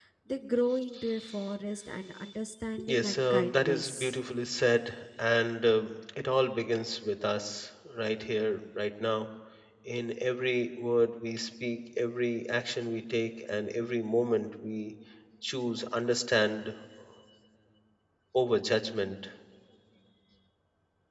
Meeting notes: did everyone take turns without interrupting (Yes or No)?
No